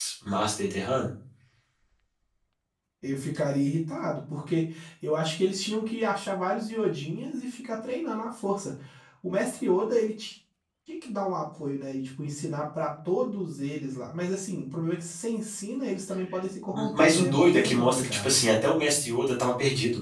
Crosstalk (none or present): present